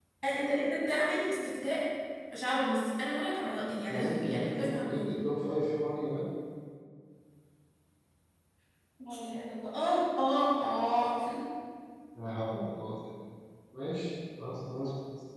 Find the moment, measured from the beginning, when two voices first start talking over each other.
4 s

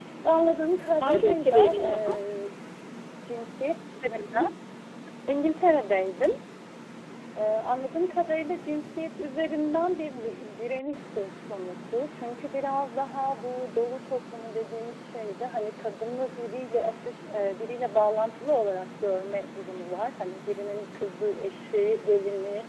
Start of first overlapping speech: 1 s

